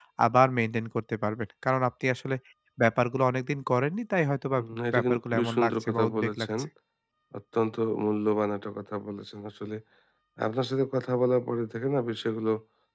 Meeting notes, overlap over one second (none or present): present